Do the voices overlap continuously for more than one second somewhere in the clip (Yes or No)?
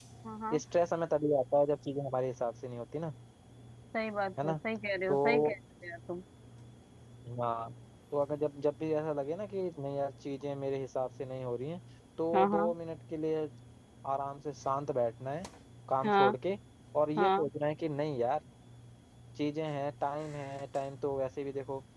No